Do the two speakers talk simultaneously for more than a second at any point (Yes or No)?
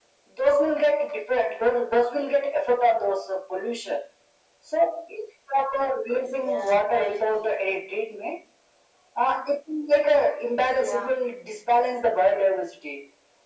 Yes